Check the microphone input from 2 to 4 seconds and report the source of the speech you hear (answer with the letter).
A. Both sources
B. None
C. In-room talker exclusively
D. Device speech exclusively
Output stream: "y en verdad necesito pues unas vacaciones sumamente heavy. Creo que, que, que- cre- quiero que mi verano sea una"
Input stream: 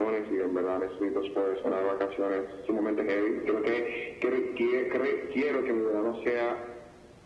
D